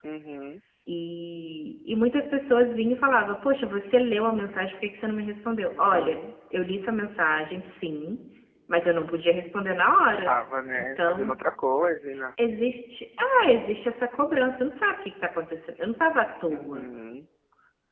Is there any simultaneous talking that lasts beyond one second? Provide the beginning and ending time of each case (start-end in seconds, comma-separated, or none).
none